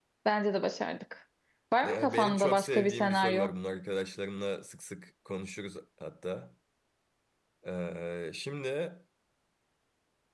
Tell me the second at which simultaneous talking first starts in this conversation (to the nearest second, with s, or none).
2 s